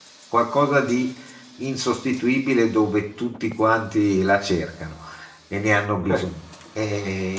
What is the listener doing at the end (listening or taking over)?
listening